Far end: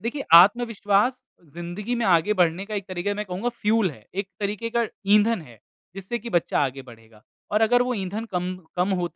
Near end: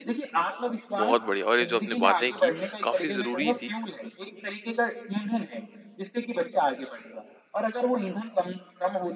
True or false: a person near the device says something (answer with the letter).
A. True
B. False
A